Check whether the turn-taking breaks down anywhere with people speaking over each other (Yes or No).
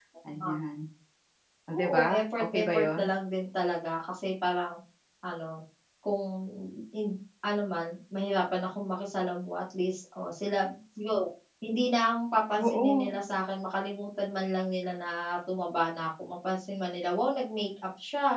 Yes